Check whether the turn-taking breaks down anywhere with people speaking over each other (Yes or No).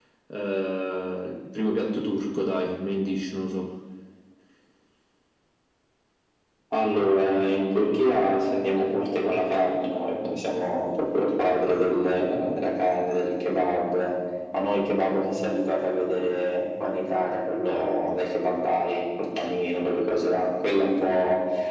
No